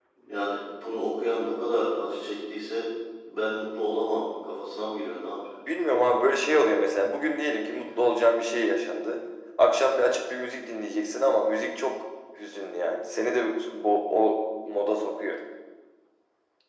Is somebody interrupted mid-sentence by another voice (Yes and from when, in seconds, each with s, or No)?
No